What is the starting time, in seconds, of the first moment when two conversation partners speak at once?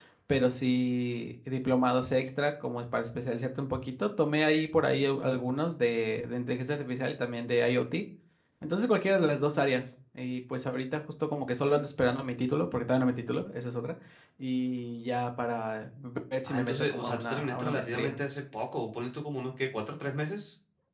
16.4 s

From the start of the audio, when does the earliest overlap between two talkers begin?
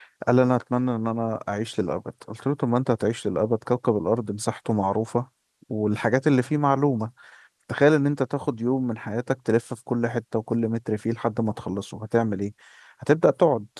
none

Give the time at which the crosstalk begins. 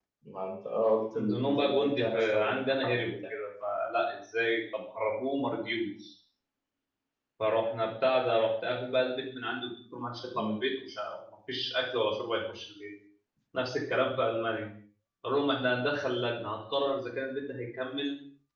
1.1 s

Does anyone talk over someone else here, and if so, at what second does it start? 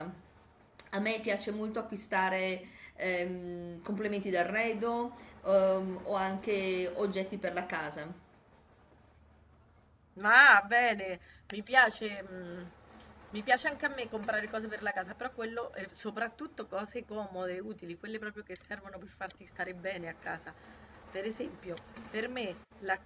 none

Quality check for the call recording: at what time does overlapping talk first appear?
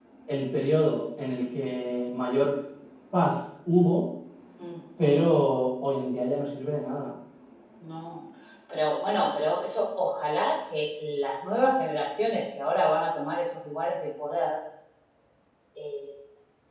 none

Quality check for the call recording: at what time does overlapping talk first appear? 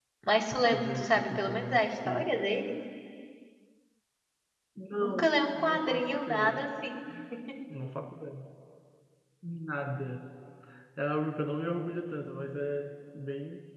0.6 s

